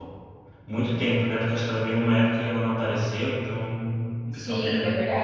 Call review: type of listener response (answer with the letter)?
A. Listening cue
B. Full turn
B